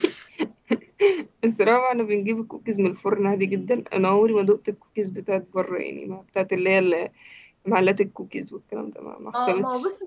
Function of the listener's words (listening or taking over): taking over